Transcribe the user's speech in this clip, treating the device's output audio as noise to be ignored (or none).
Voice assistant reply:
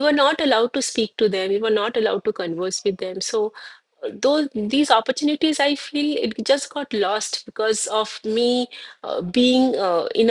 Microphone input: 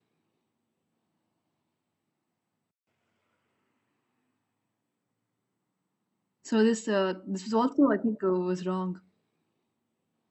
So this uh, this was also I think uh, was wrong.